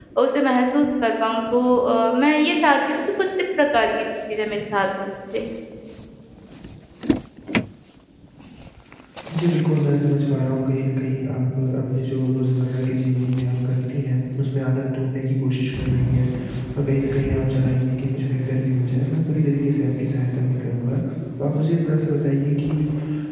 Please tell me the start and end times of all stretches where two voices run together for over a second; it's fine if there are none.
none

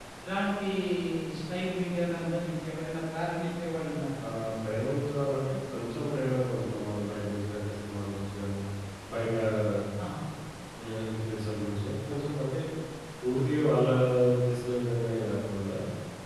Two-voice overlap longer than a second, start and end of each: none

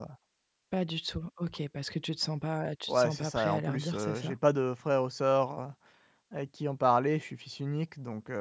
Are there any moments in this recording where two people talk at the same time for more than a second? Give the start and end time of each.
2.9-4.3

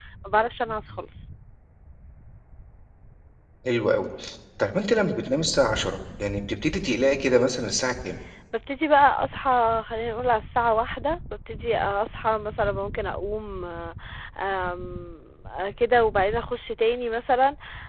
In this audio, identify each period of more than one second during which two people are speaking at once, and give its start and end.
none

